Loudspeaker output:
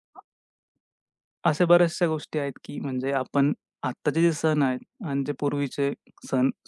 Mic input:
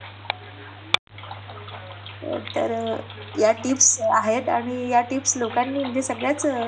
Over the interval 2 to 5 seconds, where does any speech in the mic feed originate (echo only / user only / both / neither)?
user only